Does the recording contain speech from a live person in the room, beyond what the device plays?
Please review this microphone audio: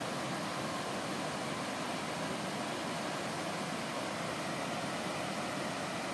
No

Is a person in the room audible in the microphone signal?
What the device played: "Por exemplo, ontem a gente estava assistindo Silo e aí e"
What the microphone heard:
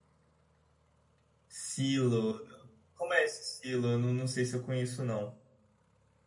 Yes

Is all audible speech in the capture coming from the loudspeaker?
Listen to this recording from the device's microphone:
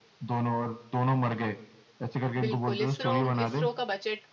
No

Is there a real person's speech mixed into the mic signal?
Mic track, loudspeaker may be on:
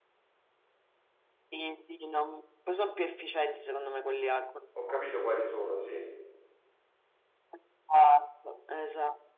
Yes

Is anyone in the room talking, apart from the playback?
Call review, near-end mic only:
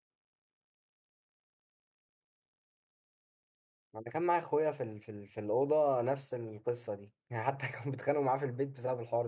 Yes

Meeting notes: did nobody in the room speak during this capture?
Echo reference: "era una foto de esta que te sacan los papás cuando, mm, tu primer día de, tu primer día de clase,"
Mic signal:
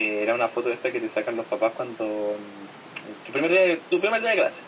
Yes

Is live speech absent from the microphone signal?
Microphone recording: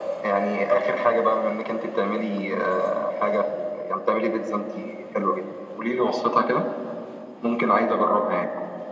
Yes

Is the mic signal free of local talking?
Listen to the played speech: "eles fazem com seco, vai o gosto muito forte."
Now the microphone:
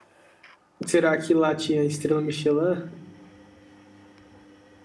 No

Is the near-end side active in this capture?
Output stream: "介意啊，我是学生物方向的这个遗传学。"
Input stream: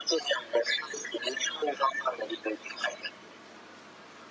No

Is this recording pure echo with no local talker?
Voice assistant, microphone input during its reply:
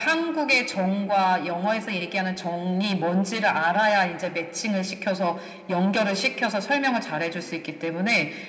Yes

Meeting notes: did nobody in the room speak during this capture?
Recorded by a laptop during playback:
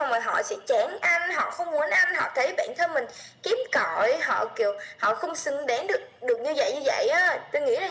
Yes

